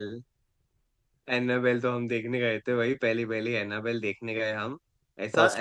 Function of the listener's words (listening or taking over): listening